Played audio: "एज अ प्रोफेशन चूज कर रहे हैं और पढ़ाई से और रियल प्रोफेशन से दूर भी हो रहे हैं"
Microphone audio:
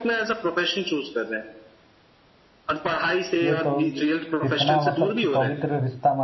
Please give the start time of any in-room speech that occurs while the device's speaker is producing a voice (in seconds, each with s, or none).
3.4 s